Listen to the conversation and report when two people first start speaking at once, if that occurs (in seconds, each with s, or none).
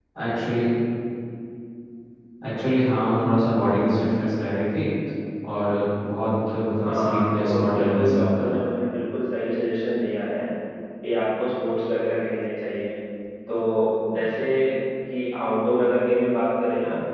6.8 s